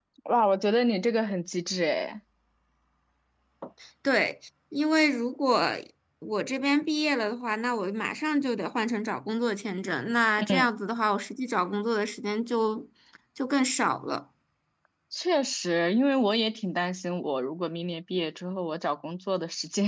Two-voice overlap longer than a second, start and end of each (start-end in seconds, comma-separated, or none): none